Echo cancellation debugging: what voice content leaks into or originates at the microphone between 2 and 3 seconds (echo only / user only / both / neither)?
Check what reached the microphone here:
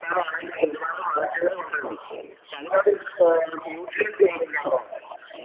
echo only